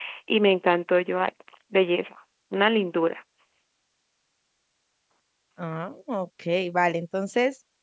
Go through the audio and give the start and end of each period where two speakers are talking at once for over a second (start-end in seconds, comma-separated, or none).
none